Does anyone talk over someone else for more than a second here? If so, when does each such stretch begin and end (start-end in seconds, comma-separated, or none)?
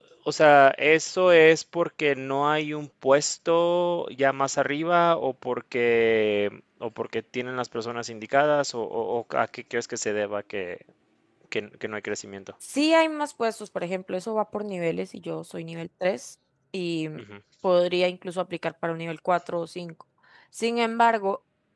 none